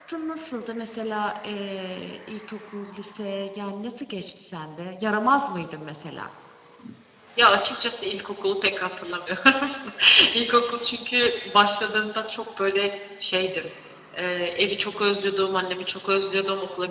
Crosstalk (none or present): none